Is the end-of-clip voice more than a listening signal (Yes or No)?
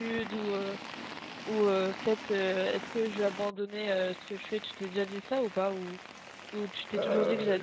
Yes